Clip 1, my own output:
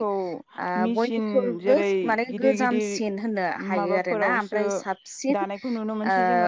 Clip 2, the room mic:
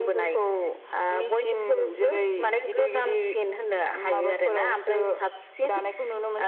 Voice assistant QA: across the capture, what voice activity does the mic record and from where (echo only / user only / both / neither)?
echo only